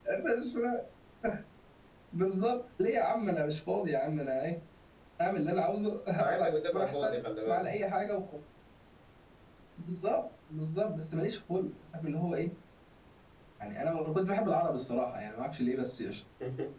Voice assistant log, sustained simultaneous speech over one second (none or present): present